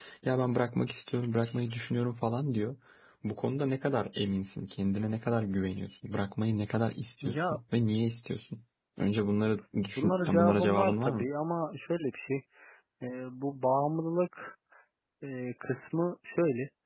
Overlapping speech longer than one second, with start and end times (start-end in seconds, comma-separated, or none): 10.0-11.3